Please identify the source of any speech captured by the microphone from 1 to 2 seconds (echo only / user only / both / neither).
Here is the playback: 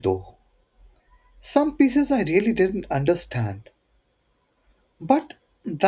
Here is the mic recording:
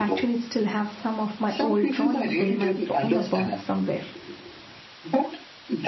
both